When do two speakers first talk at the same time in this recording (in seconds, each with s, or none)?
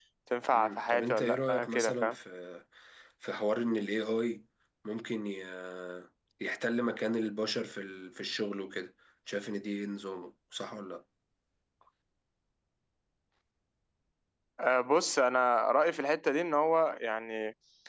0.5 s